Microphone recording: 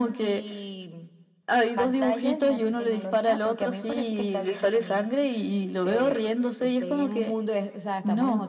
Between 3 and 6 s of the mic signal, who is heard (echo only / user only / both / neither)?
echo only